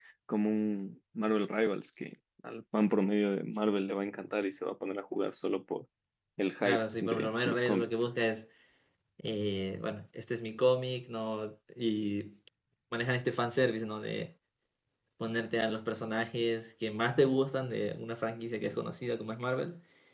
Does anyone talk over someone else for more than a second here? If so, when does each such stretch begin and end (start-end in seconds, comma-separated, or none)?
6.6-8.0